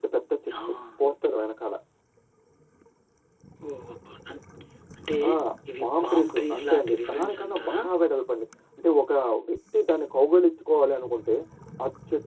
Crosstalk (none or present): present